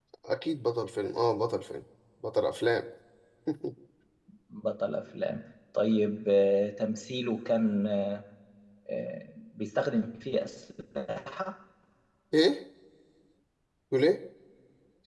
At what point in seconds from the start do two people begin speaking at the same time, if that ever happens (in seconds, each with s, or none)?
none